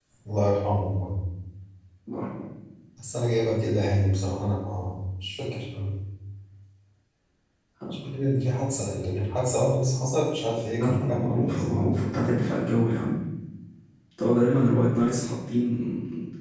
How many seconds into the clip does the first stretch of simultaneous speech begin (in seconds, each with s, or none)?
10.8 s